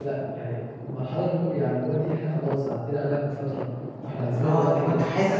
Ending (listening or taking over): taking over